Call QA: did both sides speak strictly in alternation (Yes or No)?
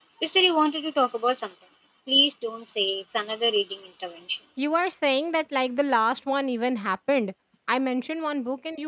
Yes